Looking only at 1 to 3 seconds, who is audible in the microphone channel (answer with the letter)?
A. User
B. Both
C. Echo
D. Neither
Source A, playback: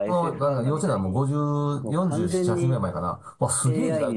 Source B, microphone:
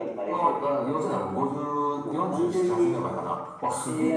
C